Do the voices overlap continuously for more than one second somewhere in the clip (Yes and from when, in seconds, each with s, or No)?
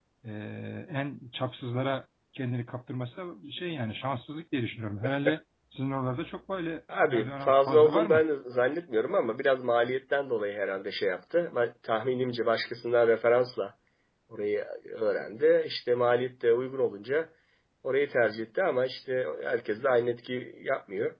Yes, from 6.9 s